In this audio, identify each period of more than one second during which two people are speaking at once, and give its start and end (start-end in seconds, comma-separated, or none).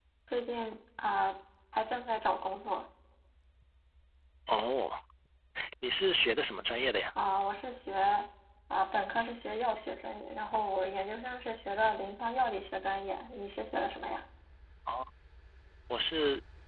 none